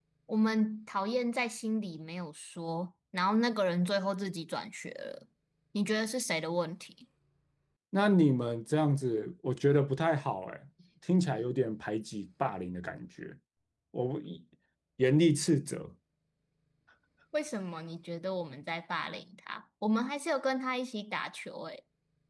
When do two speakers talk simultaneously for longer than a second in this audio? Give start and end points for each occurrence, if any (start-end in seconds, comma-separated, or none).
none